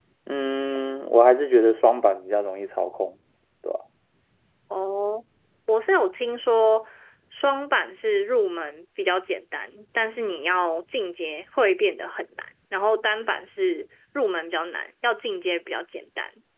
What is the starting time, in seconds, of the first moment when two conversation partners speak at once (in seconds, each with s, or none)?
none